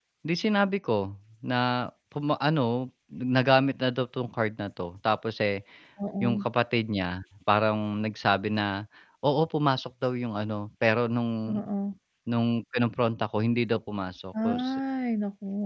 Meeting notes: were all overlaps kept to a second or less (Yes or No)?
Yes